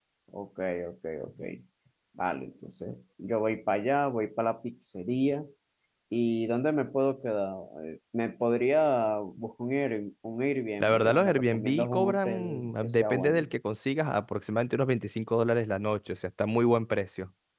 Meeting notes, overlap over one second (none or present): present